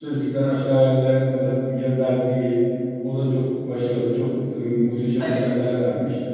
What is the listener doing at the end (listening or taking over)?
listening